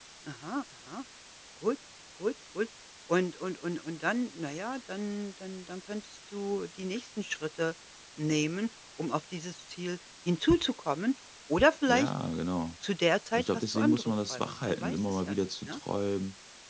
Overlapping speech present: Yes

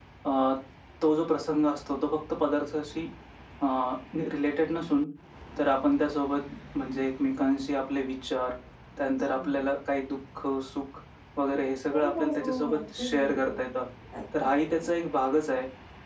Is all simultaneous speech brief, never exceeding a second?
No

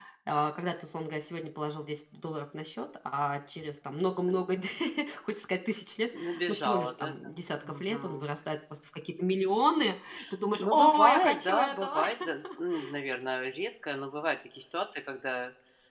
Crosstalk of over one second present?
Yes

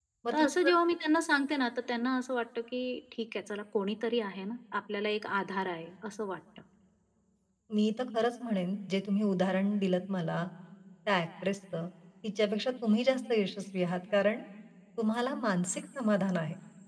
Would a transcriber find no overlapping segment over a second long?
Yes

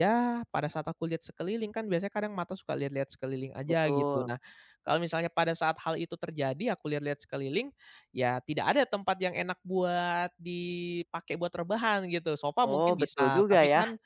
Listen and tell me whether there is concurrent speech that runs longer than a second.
Yes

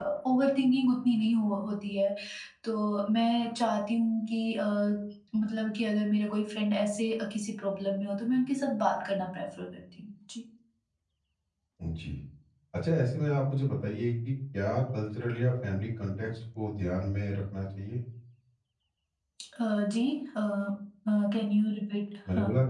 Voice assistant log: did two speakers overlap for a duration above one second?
No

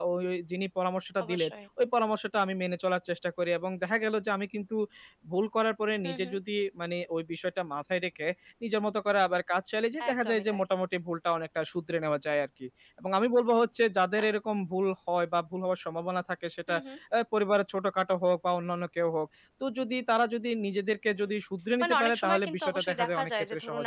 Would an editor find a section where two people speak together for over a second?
Yes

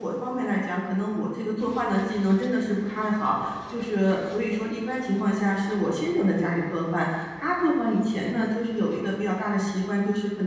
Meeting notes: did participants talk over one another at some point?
No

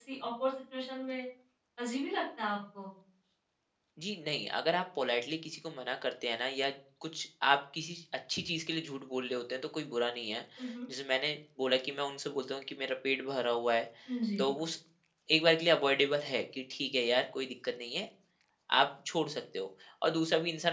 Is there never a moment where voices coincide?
Yes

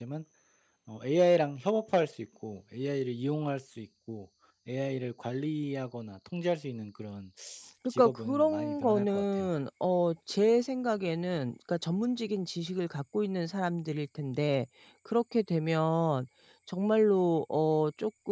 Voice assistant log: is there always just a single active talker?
No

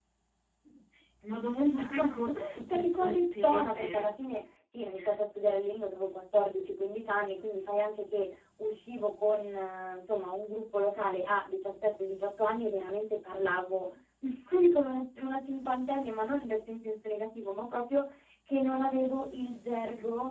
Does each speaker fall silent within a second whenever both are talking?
No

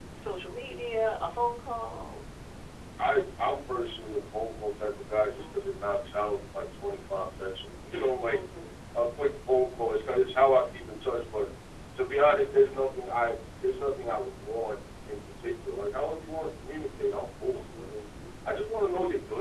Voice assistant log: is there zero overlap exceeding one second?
Yes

